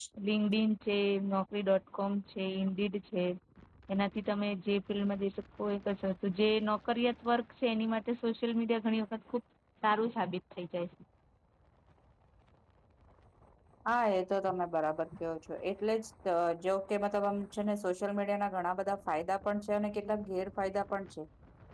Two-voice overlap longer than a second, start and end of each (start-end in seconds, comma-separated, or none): none